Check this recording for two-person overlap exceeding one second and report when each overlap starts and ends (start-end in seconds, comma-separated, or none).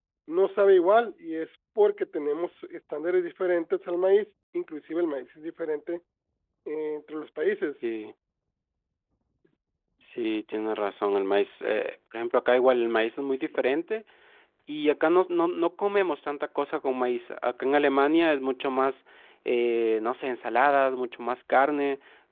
none